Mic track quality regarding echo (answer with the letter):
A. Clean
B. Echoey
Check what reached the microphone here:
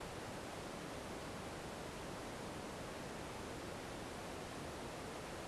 A